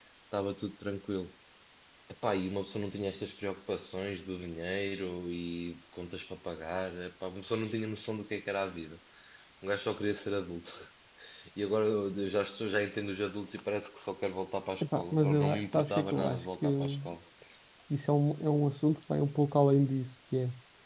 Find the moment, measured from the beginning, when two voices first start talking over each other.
14.8 s

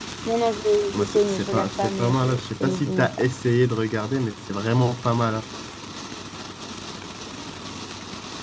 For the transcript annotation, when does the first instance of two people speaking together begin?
0.9 s

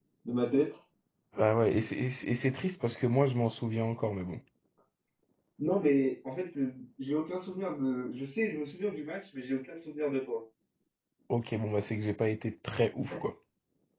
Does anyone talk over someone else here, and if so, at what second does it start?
none

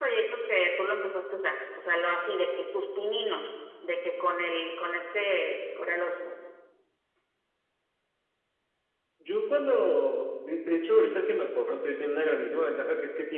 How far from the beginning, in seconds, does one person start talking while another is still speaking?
none

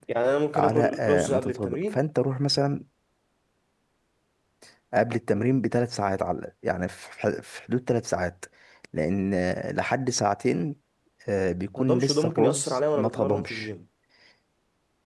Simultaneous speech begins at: 0.6 s

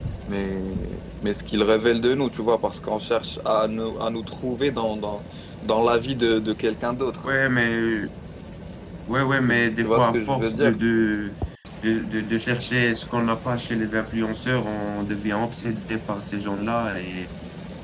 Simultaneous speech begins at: 9.5 s

